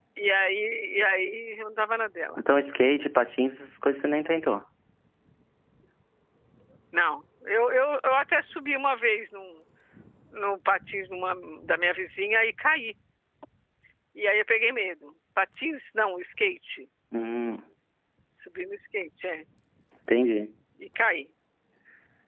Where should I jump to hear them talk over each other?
none

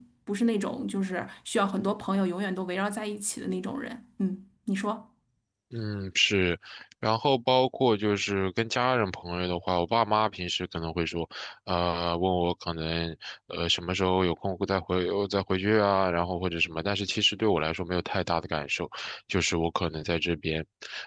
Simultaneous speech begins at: none

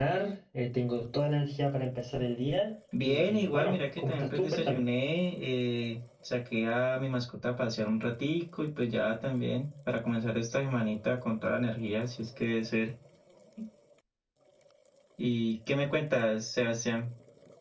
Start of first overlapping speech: 2.9 s

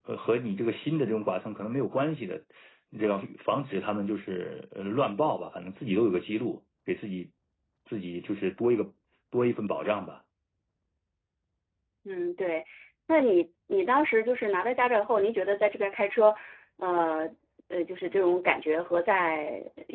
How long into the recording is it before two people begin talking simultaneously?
none

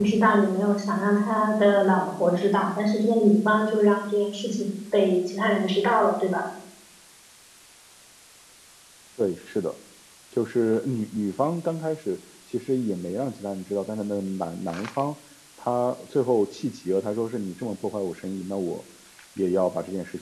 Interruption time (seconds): none

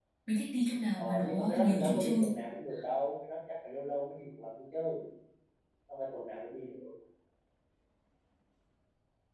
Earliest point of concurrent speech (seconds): 1.0 s

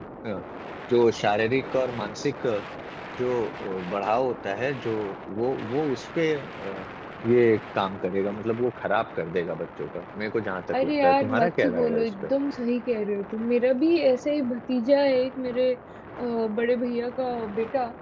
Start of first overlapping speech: 10.7 s

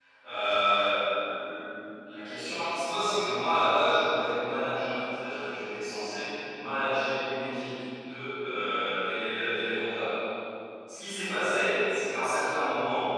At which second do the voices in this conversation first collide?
none

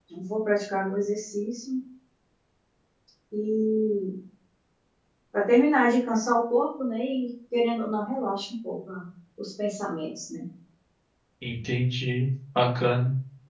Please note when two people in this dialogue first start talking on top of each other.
none

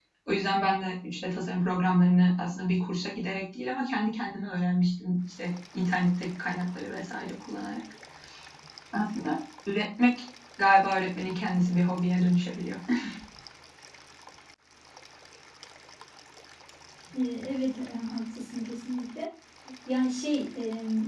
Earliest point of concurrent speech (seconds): none

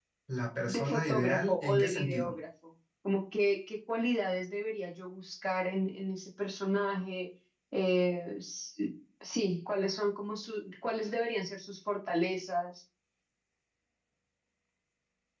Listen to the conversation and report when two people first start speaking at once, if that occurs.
0.7 s

